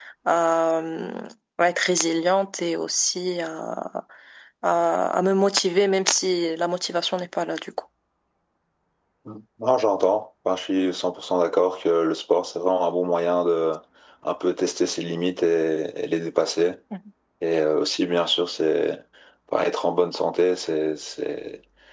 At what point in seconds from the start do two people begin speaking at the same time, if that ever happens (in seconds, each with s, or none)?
none